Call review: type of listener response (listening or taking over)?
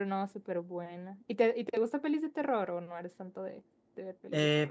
taking over